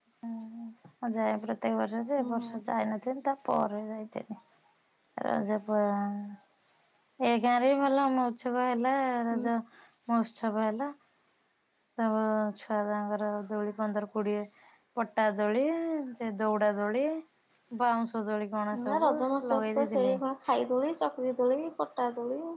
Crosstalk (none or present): present